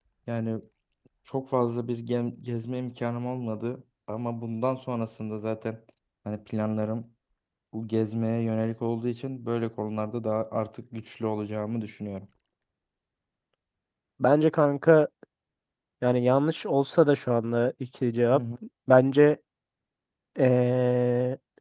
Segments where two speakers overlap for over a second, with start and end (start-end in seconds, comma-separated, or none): none